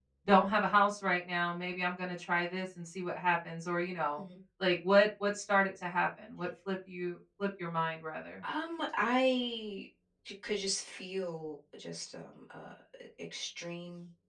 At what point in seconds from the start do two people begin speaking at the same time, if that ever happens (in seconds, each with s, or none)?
none